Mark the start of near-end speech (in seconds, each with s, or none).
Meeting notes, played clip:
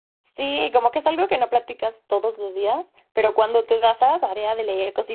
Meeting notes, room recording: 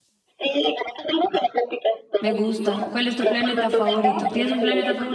2.2 s